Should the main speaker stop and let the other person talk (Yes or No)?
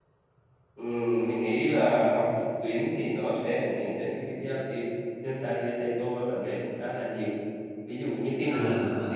No